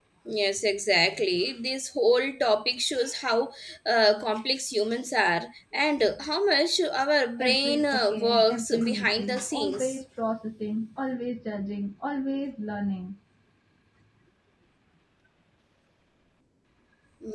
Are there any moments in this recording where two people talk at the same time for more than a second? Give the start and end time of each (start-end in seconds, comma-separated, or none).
7.4-10.0